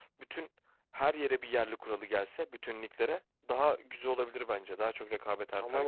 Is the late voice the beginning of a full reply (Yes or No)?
Yes